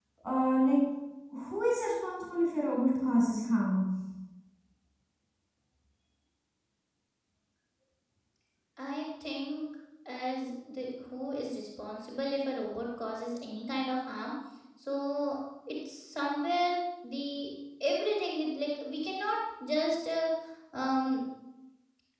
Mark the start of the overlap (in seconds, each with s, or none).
none